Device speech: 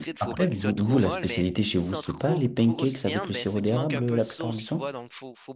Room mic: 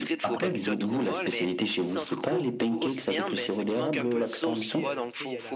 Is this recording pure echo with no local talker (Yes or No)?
No